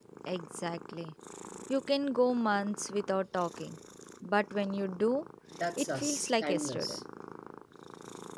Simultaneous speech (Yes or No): Yes